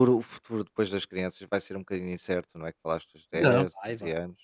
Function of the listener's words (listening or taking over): taking over